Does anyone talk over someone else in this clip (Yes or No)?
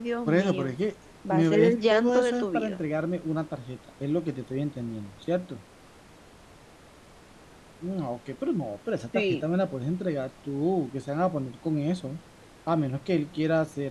Yes